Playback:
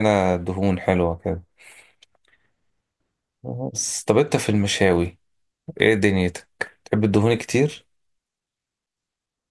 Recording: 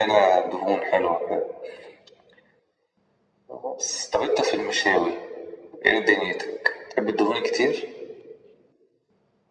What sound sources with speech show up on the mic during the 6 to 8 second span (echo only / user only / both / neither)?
echo only